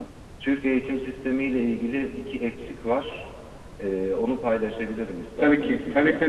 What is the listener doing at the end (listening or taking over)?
taking over